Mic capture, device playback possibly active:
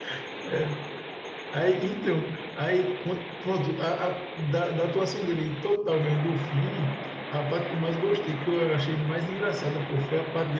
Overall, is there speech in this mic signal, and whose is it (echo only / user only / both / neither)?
echo only